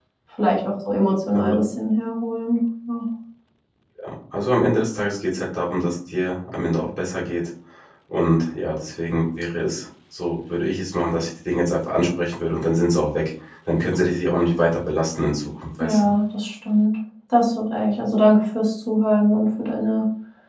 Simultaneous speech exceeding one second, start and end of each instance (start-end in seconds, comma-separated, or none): none